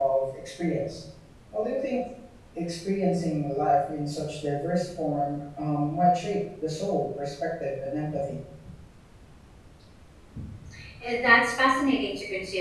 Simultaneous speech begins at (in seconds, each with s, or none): none